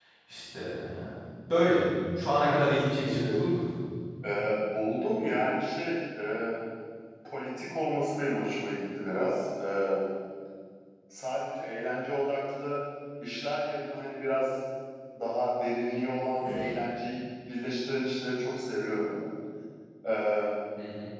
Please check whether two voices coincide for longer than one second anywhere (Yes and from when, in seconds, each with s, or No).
No